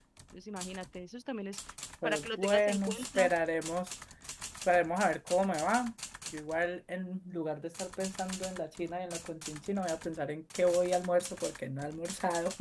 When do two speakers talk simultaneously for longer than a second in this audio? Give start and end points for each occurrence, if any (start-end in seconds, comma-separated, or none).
2.0-3.3